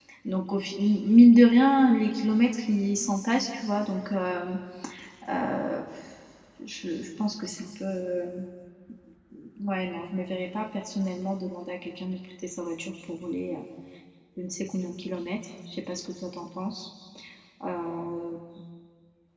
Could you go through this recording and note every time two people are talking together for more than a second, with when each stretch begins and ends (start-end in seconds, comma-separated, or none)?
none